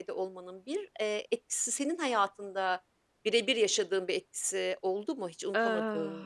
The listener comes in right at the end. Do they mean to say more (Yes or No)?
Yes